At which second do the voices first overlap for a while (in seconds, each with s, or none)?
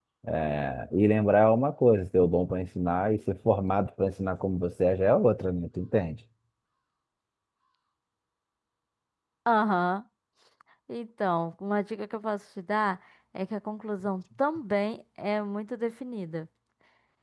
none